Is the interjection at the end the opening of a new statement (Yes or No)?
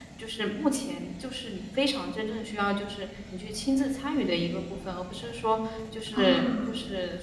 No